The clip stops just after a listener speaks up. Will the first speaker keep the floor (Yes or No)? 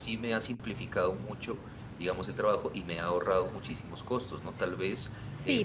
No